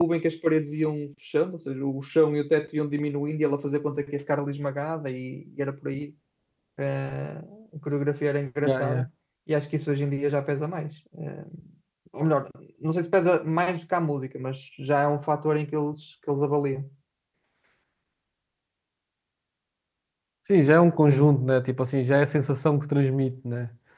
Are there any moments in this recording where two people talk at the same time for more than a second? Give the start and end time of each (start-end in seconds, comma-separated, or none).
none